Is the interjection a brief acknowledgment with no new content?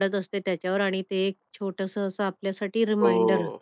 No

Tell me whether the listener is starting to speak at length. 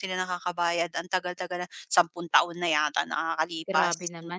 Yes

